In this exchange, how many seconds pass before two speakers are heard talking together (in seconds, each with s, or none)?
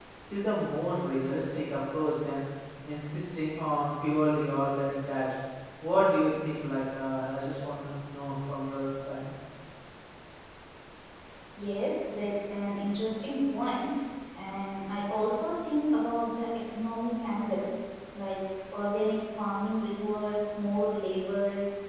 none